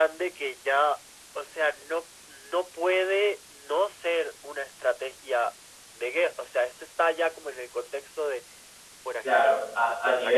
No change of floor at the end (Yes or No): No